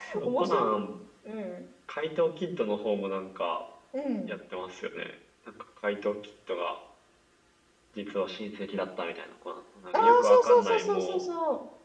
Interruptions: present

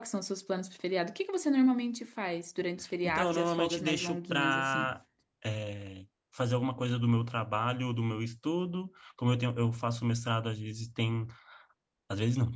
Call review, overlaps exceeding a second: present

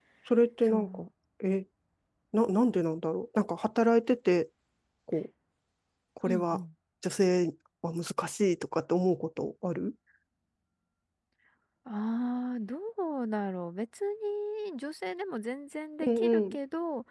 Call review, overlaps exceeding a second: none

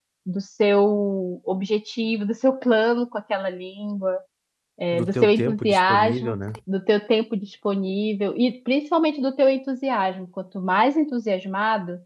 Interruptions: present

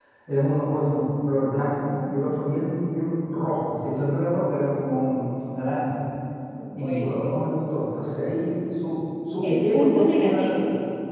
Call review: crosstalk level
present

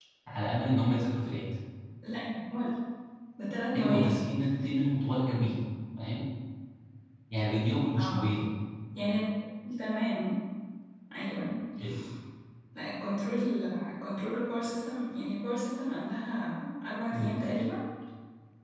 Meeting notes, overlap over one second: none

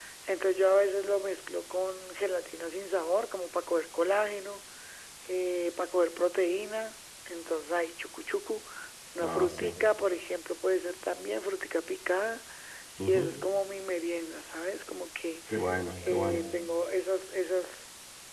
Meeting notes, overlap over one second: none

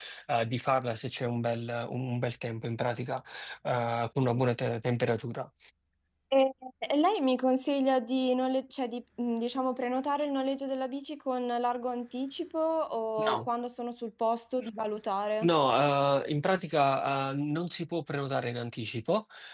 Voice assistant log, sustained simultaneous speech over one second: none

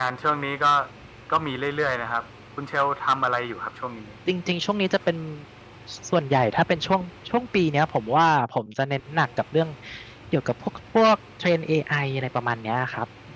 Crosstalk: none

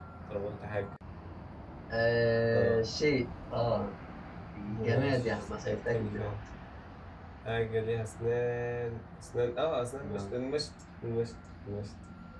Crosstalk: present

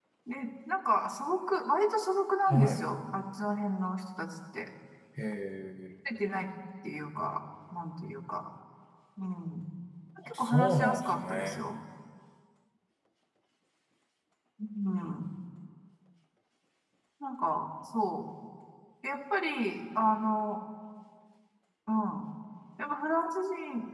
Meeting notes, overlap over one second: present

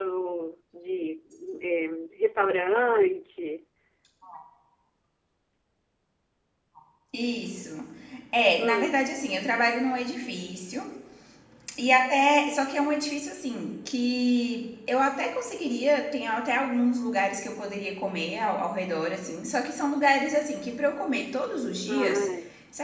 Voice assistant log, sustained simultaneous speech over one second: none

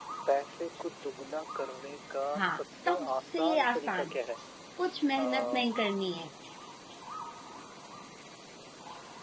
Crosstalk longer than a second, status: present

